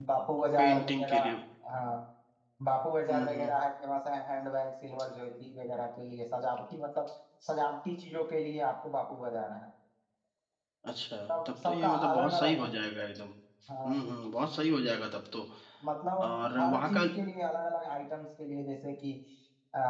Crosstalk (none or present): present